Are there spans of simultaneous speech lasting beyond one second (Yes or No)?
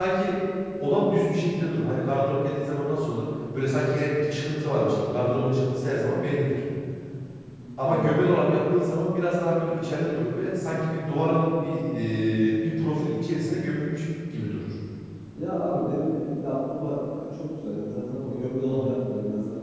No